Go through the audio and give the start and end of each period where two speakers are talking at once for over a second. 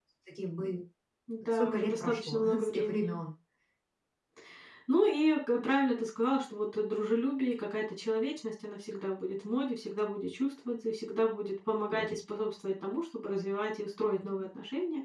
1.5-3.2

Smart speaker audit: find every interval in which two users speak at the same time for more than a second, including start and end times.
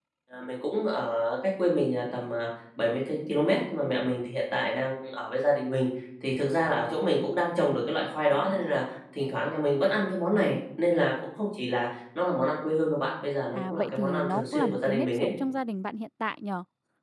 13.5-15.3

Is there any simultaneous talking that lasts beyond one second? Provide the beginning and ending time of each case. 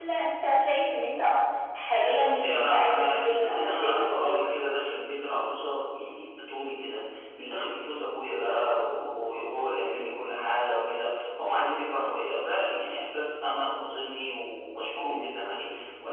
2.2-4.4

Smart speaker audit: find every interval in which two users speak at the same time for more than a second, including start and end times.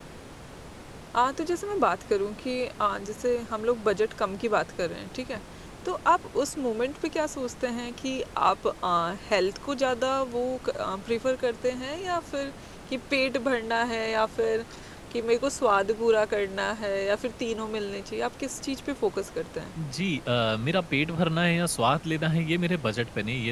none

